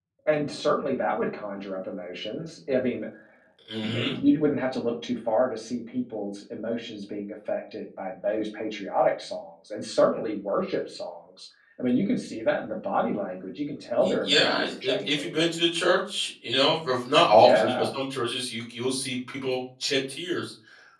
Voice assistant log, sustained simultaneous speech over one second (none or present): present